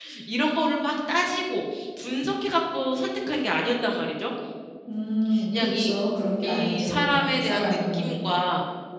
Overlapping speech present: Yes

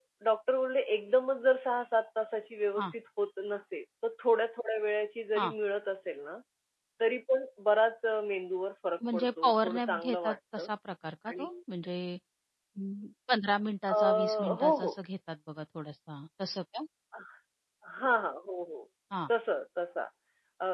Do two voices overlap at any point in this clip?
Yes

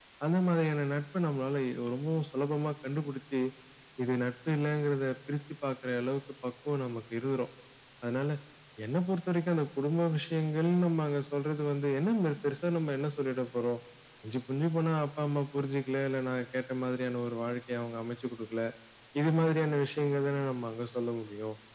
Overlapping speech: No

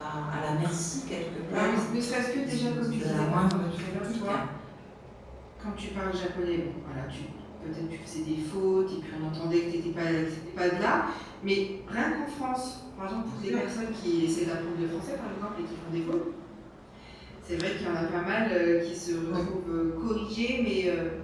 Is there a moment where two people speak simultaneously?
Yes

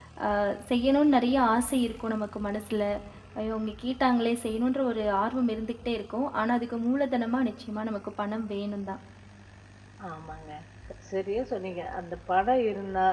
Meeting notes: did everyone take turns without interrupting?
Yes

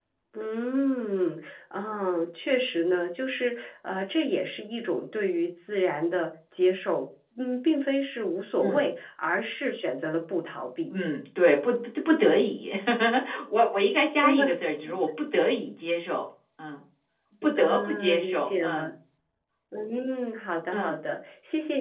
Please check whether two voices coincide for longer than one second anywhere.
Yes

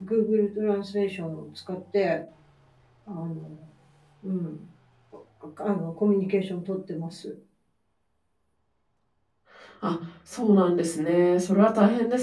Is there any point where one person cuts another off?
No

